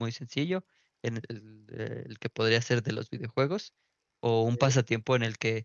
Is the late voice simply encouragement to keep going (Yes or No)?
Yes